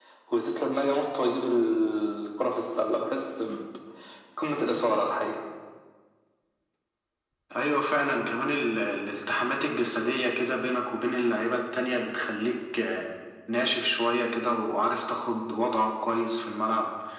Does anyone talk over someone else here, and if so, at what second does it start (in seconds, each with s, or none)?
none